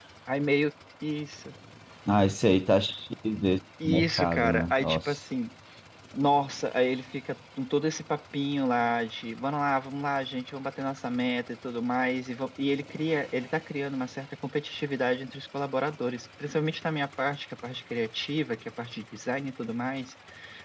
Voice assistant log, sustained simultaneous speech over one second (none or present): present